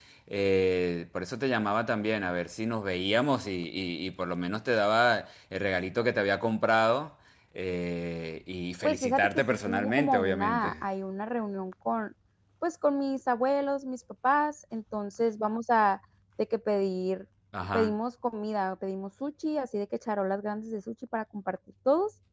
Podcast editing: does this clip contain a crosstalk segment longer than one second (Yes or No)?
Yes